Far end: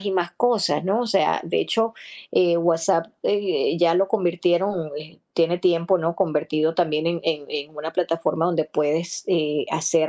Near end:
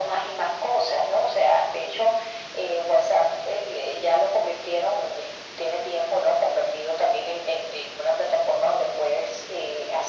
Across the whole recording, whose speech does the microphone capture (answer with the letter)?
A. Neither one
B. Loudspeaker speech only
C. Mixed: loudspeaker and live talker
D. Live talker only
B